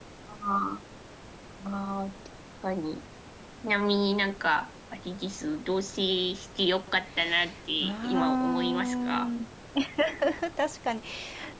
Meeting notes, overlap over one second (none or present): present